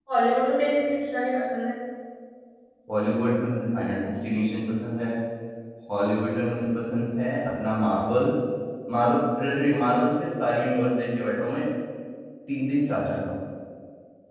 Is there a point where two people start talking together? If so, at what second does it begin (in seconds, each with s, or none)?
none